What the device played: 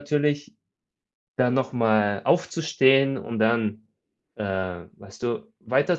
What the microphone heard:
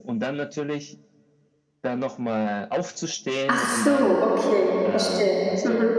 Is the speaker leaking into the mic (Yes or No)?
Yes